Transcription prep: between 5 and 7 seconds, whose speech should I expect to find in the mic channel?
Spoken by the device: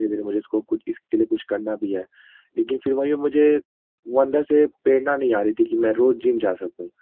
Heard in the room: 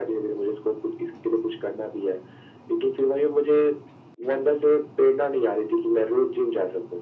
echo only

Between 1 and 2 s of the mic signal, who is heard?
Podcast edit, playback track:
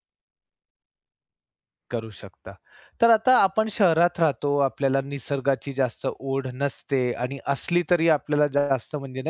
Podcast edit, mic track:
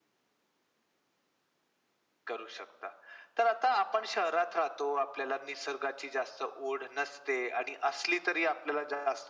neither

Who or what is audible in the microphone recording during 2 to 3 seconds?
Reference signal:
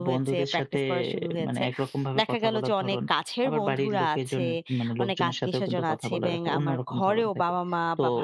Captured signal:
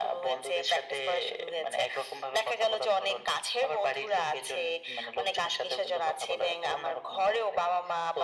echo only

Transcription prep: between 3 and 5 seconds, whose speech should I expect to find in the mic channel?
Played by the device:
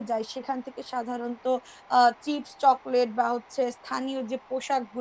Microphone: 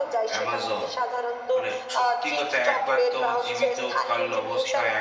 both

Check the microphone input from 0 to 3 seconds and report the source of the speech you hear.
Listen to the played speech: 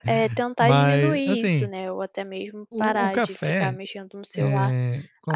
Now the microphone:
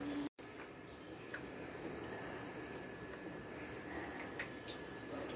neither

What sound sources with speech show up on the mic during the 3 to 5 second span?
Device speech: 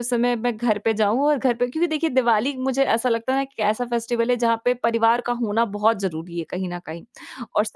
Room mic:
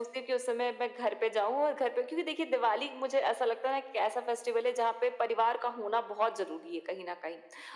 echo only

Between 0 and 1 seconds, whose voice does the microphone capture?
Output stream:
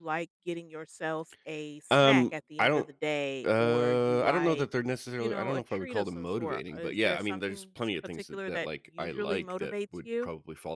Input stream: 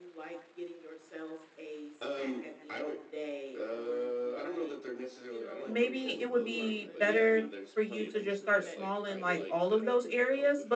echo only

